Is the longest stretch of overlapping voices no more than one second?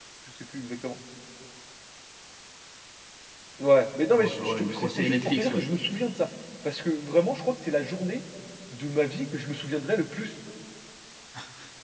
No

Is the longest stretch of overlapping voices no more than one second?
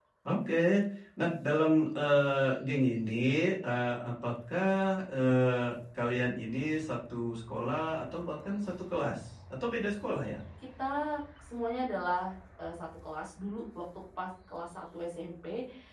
Yes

